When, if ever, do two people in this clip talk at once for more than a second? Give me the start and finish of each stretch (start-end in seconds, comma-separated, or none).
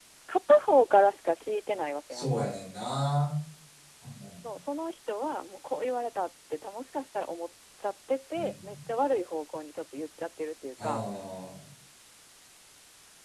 none